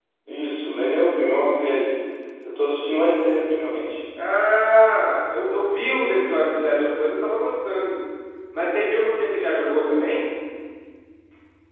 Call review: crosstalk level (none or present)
none